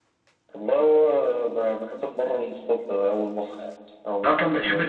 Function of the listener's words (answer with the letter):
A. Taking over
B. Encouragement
A